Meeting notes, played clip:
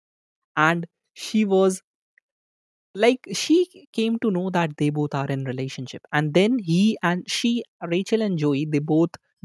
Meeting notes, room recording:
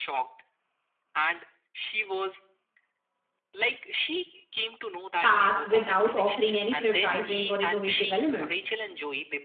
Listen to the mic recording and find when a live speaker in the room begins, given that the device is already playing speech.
5.2 s

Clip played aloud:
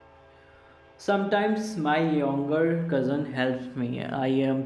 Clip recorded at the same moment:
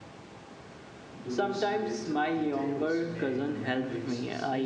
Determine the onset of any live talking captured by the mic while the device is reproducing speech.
1.1 s

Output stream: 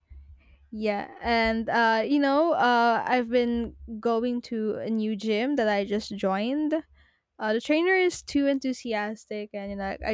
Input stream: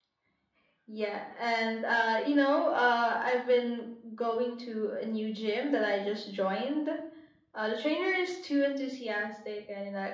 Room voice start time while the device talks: none

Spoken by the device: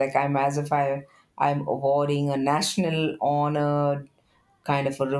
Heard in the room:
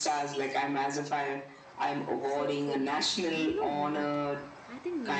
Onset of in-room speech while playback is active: 2.2 s

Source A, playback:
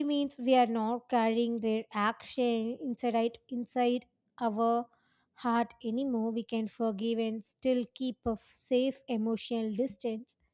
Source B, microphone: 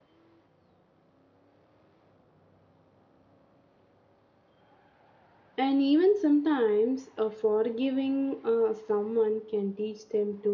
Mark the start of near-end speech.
5.6 s

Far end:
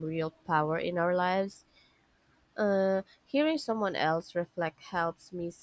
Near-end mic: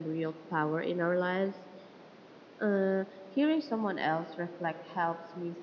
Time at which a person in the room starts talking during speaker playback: none

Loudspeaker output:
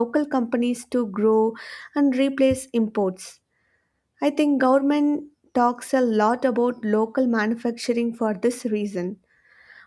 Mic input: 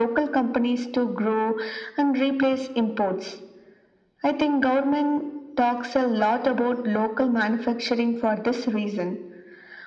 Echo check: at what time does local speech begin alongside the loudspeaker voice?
none

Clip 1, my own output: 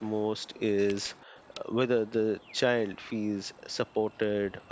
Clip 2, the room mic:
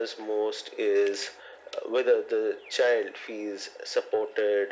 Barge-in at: none

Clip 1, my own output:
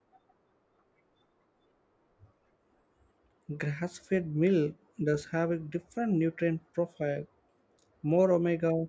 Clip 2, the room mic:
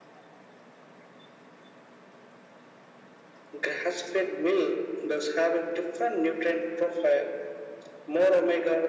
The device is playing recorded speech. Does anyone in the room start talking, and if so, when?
none

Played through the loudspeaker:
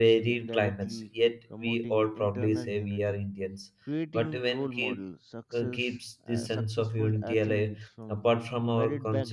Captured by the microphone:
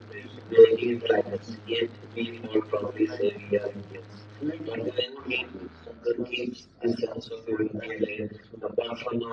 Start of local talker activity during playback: none

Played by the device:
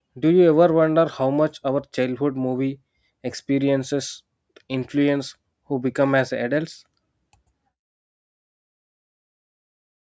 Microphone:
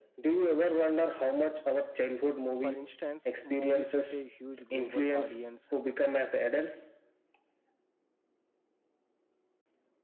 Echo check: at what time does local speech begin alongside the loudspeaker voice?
2.6 s

